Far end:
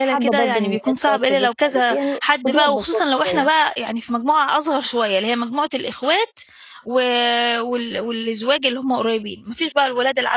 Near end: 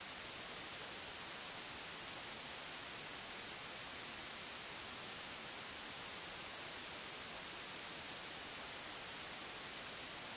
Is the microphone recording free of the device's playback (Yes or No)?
Yes